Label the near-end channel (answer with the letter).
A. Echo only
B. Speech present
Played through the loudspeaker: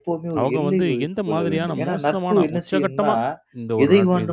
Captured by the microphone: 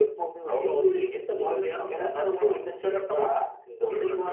A